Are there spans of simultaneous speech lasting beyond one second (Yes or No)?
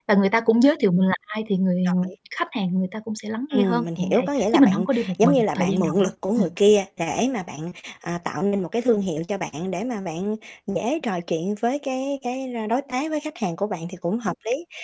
Yes